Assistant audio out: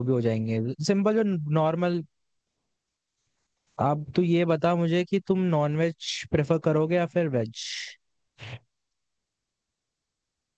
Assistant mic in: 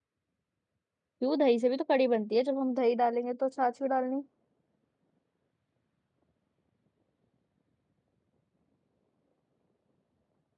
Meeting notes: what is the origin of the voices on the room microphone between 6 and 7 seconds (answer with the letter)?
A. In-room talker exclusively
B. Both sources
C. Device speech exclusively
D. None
D